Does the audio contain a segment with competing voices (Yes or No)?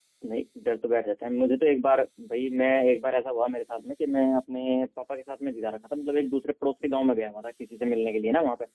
No